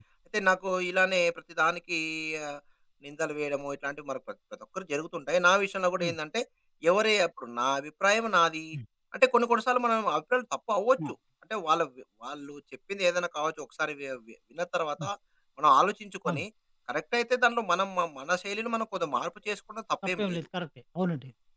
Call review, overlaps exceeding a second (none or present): none